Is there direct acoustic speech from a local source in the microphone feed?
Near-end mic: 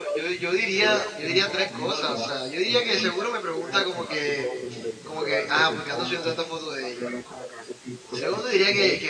Yes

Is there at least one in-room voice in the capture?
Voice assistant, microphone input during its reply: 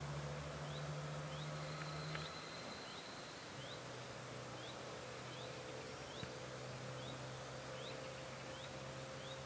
No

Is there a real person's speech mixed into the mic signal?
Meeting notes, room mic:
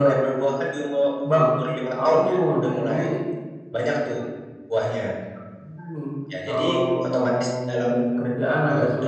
No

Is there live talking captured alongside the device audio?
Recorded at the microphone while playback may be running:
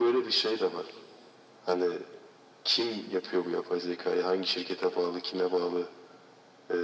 No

